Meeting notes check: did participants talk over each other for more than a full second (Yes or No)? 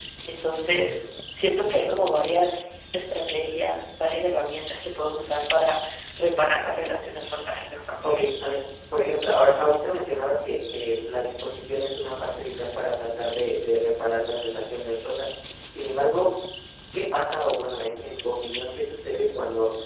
No